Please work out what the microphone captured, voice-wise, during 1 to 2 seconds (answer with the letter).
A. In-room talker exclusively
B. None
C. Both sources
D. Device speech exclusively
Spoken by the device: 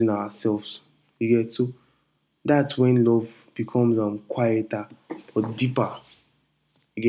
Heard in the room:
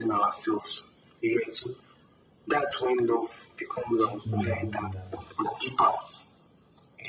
D